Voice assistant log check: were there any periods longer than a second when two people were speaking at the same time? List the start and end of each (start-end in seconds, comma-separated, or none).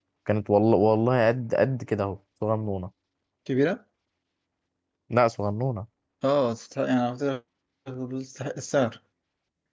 none